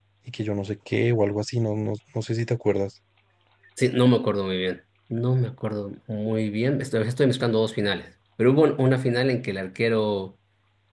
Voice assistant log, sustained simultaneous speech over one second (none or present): none